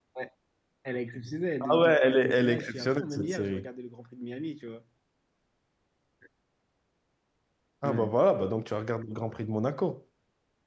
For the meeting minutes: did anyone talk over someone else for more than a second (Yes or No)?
Yes